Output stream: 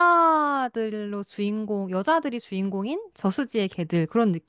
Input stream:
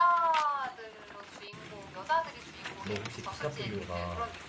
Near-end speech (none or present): present